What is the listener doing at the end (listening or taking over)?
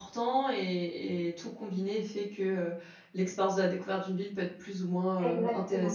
taking over